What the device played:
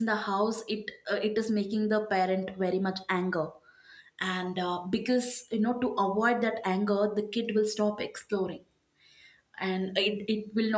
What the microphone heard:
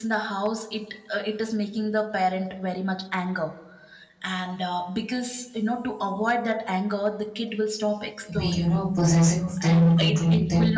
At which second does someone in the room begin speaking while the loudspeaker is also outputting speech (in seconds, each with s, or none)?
8.3 s